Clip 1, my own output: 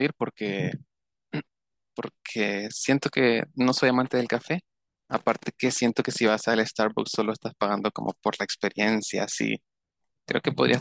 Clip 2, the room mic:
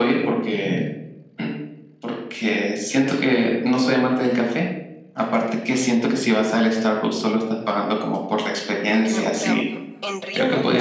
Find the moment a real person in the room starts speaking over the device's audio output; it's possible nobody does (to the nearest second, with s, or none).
9 s